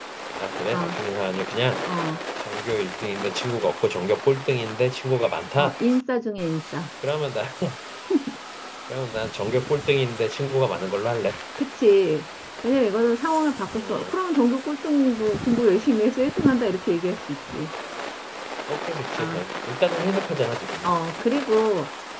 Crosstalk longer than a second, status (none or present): none